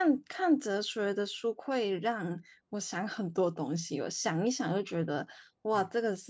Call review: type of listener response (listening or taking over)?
listening